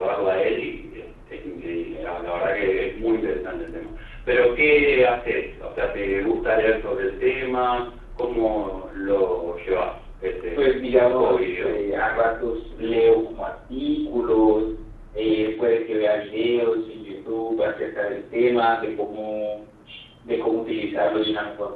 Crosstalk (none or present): present